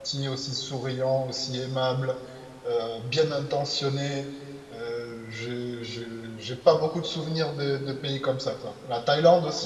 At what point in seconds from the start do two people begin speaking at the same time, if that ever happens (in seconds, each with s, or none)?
none